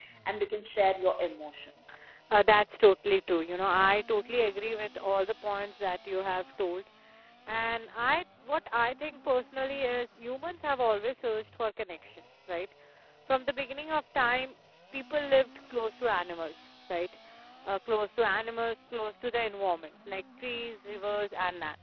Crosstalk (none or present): none